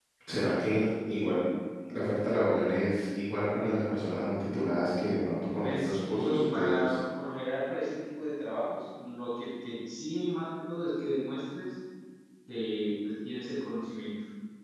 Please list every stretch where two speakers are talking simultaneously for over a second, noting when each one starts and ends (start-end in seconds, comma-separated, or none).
5.6-7.0